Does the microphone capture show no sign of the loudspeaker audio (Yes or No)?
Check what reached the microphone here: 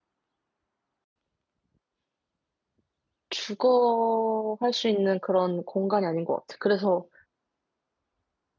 Yes